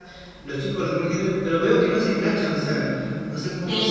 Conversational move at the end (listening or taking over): taking over